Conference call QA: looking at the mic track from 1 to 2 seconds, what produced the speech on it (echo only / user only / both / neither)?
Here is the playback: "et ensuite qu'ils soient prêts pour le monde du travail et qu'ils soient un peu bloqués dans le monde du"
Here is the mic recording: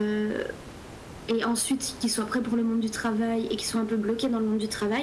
echo only